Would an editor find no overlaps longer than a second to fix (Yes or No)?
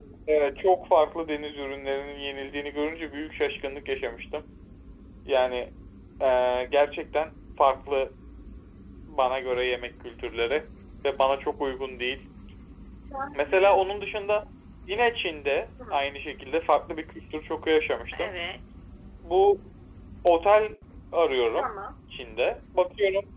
Yes